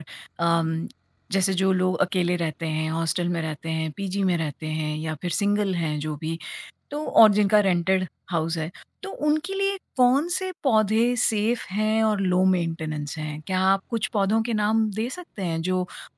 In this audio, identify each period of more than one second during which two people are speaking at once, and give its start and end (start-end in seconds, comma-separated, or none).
none